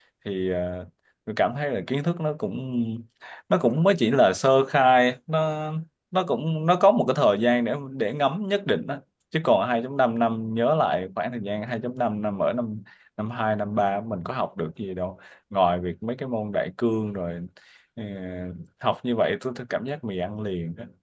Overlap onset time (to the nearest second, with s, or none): none